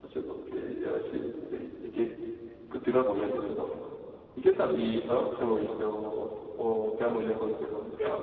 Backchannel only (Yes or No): No